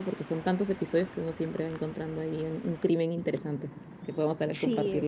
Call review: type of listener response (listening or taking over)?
taking over